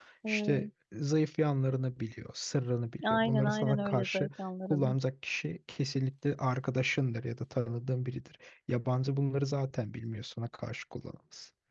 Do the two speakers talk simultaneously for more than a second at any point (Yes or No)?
Yes